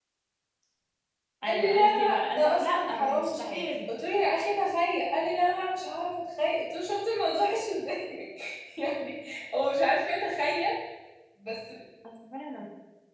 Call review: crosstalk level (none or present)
present